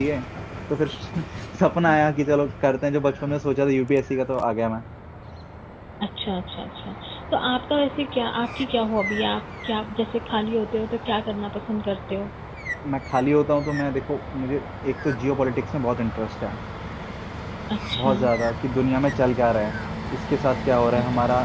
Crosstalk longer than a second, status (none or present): none